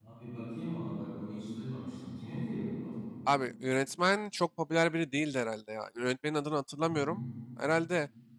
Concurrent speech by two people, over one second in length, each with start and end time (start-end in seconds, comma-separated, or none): none